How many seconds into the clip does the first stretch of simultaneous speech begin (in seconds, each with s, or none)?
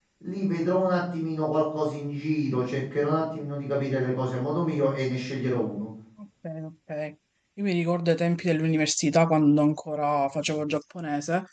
none